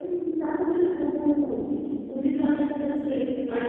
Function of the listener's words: taking over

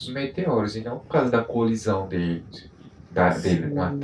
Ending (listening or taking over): taking over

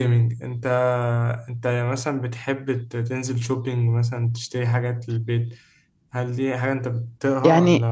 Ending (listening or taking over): taking over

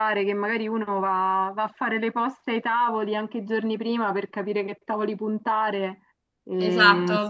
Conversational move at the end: taking over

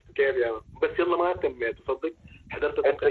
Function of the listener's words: listening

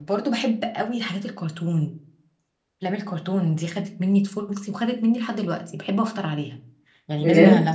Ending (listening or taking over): listening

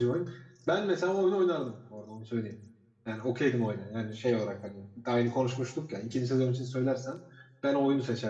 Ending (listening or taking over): listening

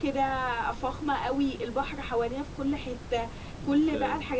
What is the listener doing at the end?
listening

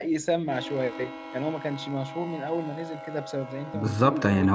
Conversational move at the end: taking over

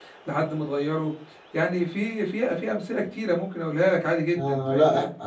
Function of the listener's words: taking over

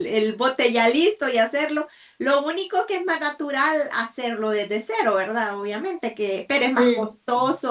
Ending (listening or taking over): listening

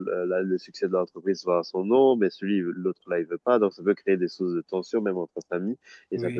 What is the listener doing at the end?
listening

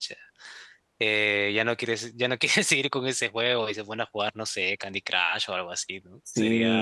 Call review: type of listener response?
taking over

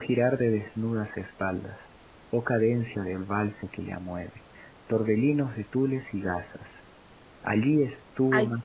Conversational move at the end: listening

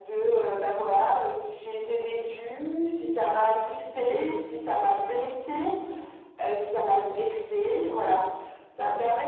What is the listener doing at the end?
listening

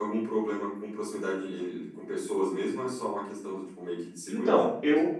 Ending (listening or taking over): taking over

